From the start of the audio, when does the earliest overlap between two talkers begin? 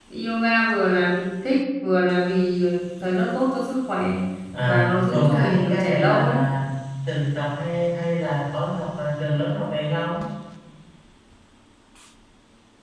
5 s

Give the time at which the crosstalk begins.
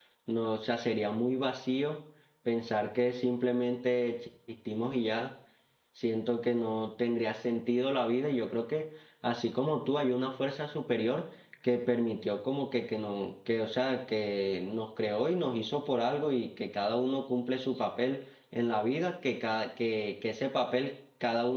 none

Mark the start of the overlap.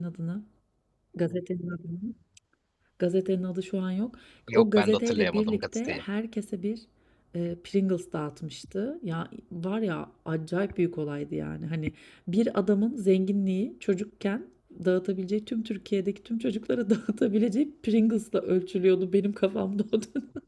4 s

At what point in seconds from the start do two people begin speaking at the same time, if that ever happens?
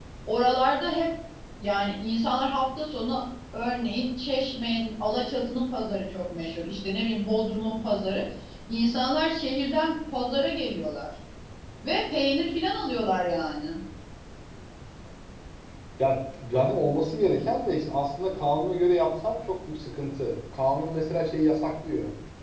none

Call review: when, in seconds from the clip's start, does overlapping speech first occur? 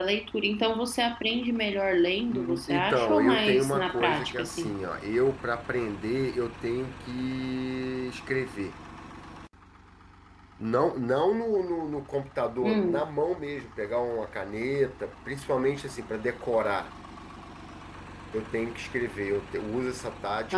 2 s

